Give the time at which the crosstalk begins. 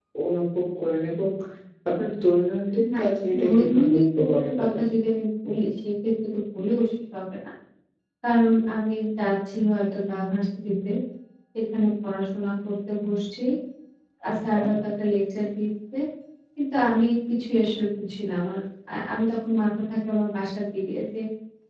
3 s

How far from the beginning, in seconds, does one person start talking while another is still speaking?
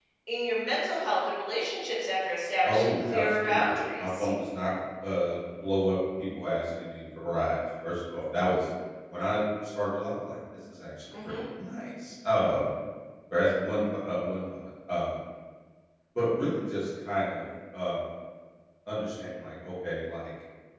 3 s

